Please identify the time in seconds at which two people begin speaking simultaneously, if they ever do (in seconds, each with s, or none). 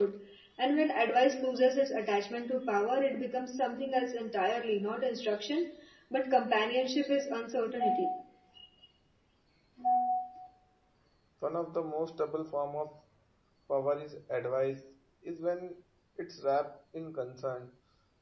none